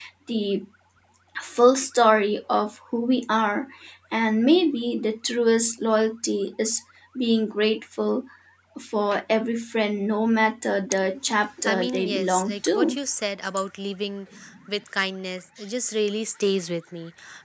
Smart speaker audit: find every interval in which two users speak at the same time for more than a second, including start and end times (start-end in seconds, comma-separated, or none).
11.6-13.0